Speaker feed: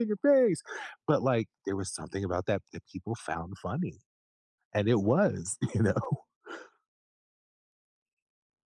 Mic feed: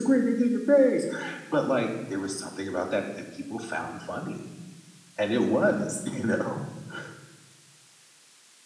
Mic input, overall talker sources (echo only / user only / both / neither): echo only